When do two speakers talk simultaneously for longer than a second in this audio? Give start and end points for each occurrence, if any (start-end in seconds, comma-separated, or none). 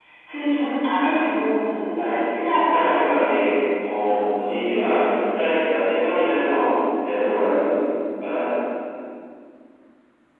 1.9-3.2